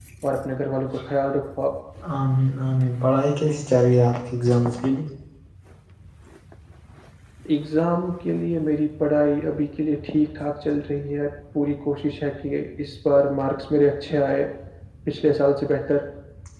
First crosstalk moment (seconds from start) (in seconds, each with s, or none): none